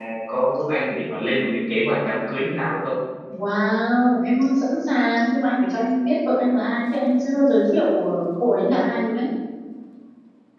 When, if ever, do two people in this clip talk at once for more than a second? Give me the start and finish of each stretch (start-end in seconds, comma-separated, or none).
none